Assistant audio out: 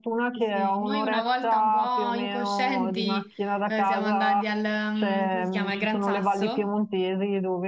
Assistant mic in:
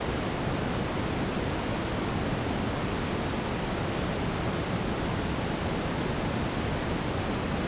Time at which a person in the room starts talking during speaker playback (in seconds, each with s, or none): none